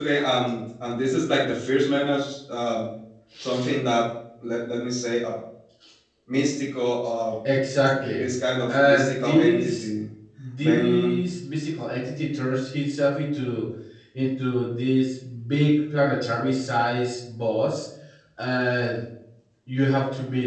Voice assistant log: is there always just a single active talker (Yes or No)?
No